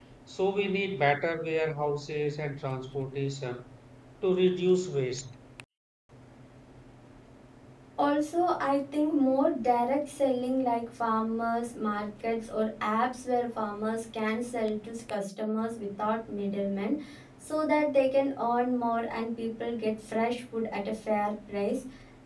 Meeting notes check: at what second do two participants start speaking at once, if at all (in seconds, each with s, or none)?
none